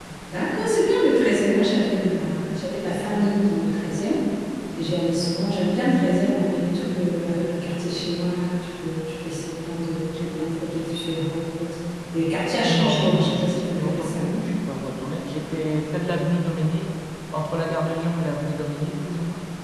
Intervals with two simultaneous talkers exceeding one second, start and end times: 12.7-14.4

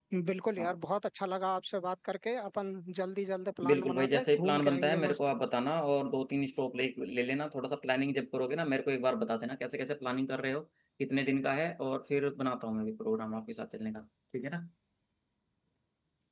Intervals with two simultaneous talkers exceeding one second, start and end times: 3.7-5.2

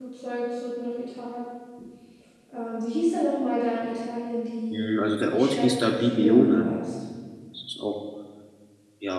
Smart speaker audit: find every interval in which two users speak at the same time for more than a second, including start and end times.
5.3-6.6

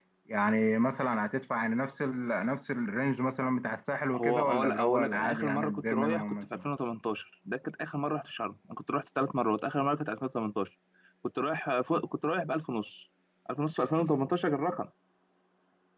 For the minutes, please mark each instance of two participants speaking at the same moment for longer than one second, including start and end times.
4.2-6.6

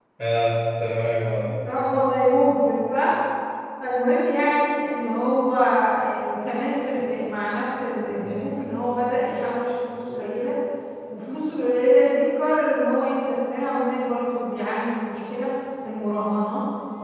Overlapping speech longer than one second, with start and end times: none

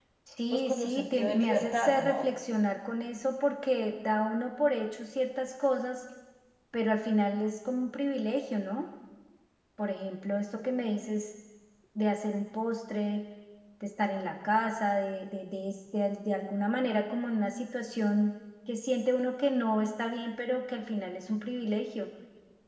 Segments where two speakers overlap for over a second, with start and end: 0.5-2.3

